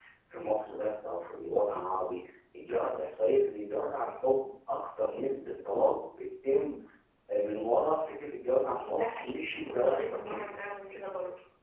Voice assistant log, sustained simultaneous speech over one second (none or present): present